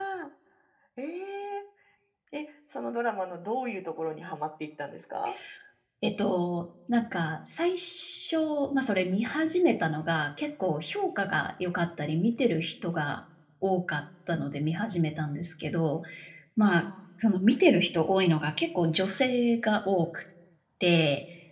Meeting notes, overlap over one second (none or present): none